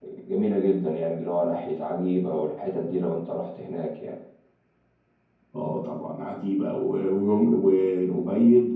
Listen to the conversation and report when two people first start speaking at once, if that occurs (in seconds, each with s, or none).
none